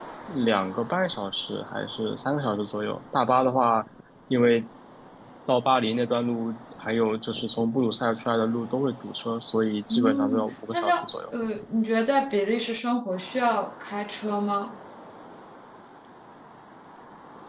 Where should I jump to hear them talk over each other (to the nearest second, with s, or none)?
10 s